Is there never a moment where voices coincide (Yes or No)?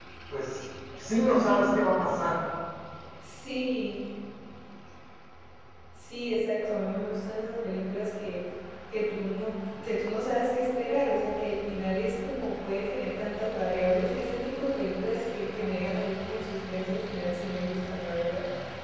Yes